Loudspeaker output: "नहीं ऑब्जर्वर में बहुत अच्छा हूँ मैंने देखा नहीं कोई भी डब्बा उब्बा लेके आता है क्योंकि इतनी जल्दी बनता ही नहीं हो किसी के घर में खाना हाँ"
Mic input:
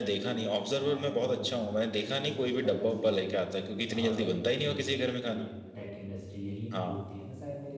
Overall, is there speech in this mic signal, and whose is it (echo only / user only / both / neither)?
both